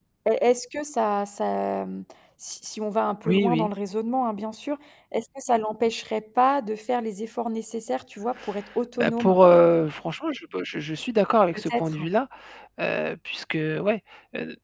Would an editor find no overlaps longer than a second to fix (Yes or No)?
Yes